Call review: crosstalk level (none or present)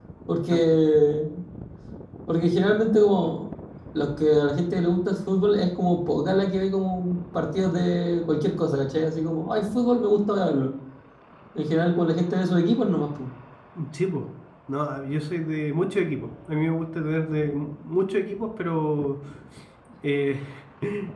none